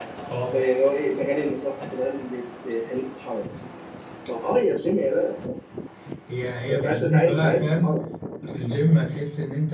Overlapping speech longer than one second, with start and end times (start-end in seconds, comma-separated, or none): 6.7-8.0